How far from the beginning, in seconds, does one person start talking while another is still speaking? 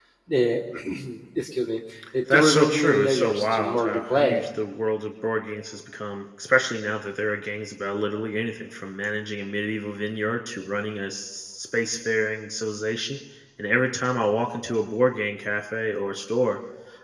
2.3 s

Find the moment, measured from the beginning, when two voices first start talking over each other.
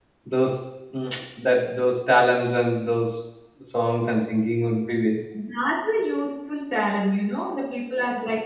none

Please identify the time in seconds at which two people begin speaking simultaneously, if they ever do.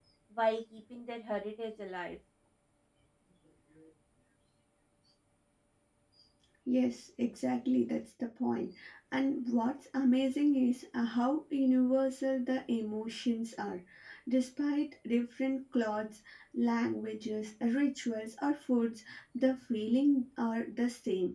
none

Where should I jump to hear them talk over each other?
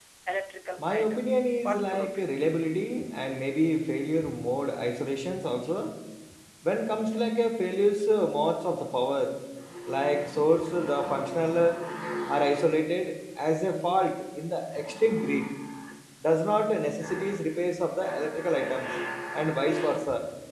0.8 s

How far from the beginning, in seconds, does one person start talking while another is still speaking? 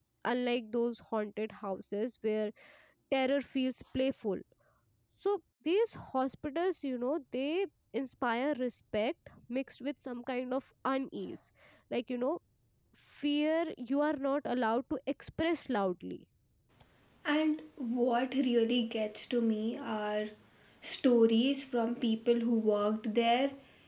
none

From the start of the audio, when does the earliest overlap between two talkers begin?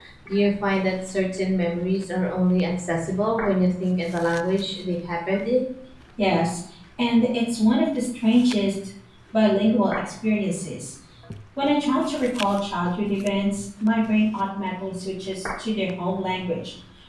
none

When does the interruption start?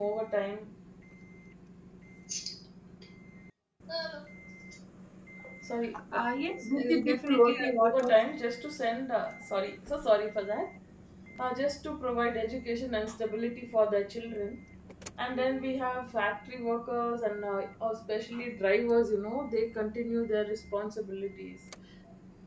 6.7 s

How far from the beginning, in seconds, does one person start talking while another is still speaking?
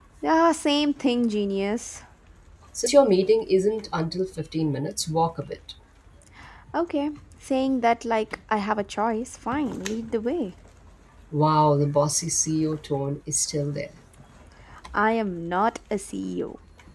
none

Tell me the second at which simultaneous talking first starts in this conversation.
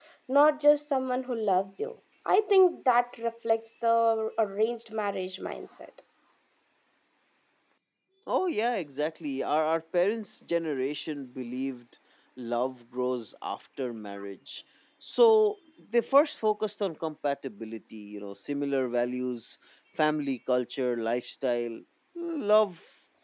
none

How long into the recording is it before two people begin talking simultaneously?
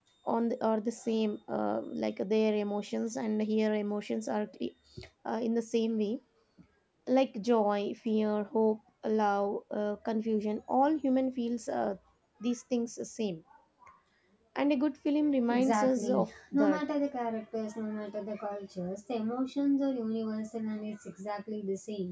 15.5 s

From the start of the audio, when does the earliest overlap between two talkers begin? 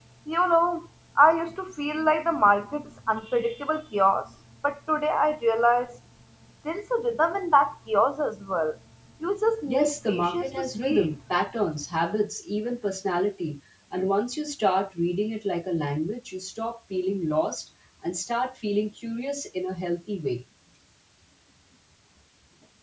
9.7 s

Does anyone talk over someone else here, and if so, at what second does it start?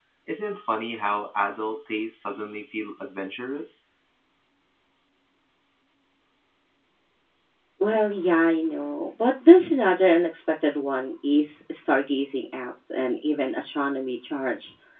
none

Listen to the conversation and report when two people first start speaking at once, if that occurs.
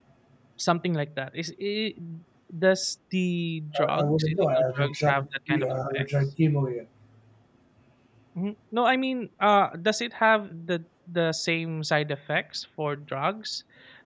3.7 s

